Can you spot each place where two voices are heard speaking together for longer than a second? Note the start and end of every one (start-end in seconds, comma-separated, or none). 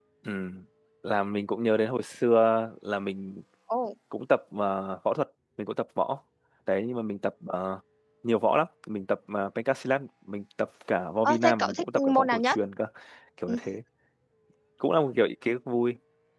11.2-12.6